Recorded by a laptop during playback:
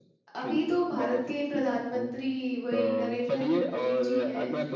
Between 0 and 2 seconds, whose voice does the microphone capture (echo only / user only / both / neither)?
both